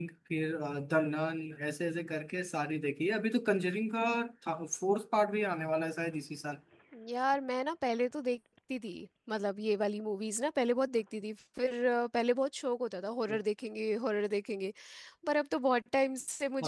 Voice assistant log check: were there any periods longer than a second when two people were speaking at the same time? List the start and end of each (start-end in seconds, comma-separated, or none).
none